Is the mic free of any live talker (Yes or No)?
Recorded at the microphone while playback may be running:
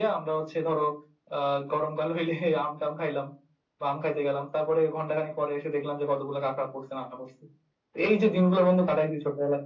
Yes